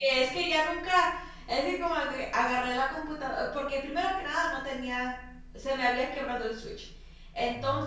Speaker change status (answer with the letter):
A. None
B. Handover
A